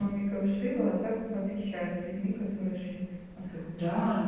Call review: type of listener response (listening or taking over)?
taking over